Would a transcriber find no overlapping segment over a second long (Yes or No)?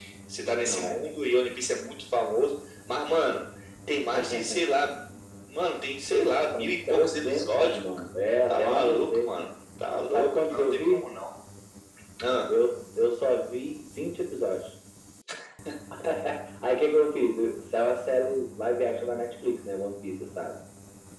No